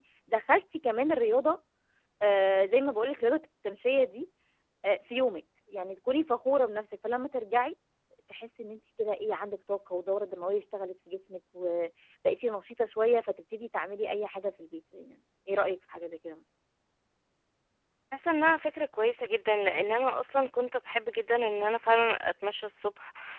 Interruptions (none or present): none